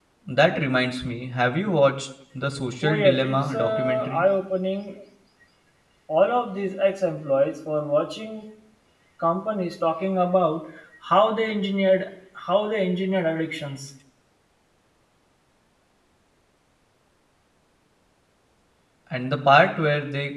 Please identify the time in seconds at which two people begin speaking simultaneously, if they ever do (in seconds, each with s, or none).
2.8 s